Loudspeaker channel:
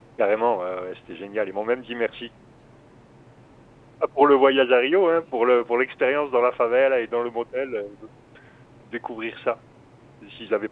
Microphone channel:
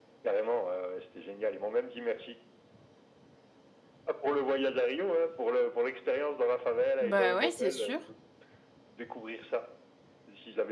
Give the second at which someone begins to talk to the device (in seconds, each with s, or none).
7.0 s